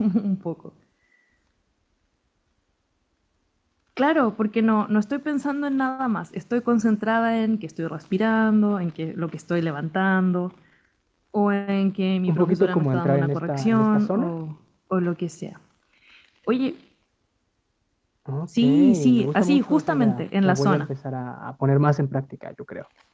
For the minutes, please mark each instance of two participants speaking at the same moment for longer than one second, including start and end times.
12.3-14.3, 18.6-20.9

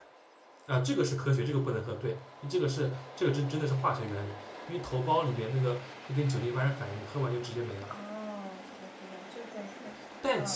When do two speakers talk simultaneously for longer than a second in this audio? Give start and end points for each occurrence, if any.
none

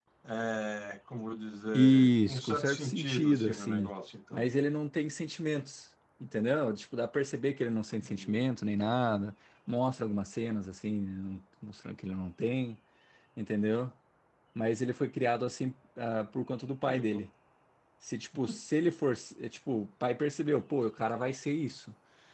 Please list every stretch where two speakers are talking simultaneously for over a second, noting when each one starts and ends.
1.7-3.9

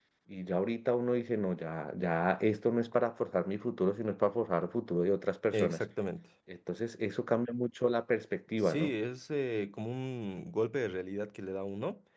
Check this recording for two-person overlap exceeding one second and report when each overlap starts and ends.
none

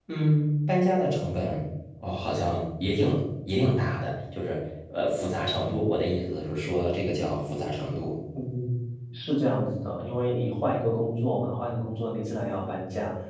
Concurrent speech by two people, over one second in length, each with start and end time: none

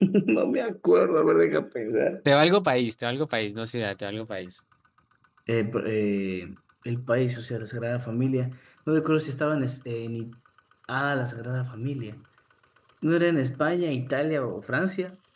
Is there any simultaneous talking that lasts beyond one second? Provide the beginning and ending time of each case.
none

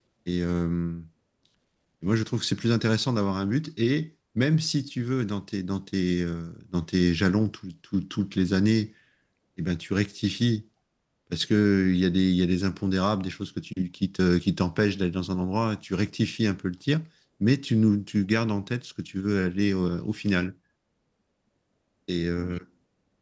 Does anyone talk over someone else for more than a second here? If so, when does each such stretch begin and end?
none

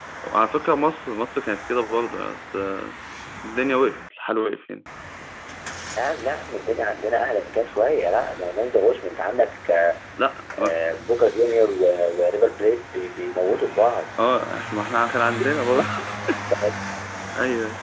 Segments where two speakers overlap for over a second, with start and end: none

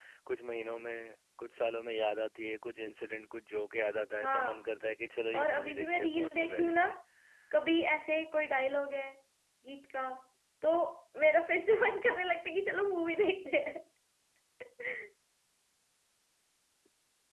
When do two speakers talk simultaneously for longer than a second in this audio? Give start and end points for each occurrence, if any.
5.3-6.8

